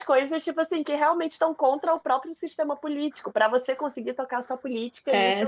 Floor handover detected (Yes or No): Yes